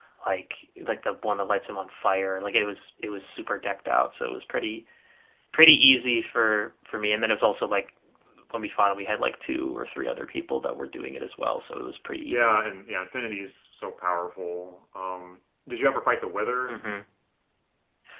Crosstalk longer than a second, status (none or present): none